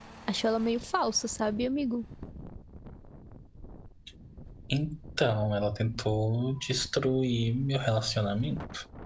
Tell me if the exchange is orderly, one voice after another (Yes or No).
Yes